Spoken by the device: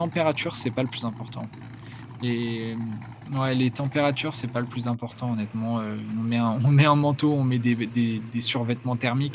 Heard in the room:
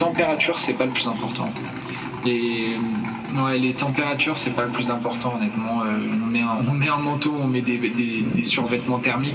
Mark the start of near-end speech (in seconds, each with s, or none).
none